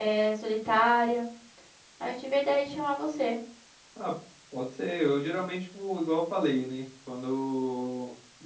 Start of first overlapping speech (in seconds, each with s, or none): none